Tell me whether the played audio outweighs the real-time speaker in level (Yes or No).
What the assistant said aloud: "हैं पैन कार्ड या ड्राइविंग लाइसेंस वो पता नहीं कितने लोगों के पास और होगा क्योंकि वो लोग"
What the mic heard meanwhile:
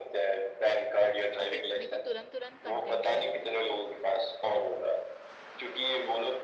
Yes